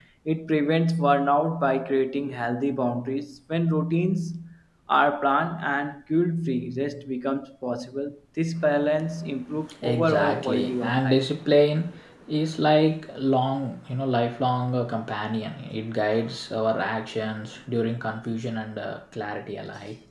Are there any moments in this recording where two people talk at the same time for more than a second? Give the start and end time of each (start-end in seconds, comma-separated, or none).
9.8-11.2